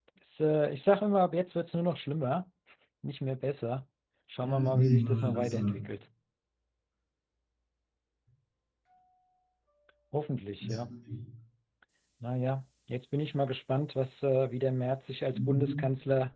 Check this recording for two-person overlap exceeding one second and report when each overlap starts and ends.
4.4-5.8

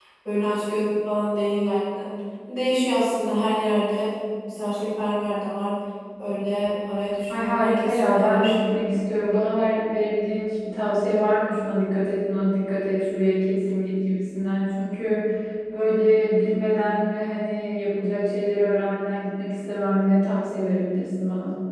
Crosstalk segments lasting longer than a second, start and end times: 7.3-8.6

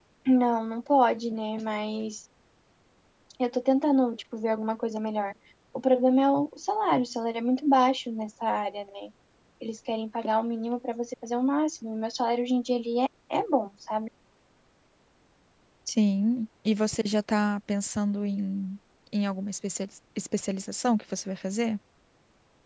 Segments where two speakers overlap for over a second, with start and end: none

